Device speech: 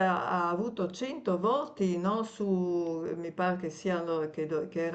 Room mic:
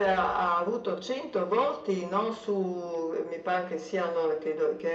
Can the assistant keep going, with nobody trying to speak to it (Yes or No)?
Yes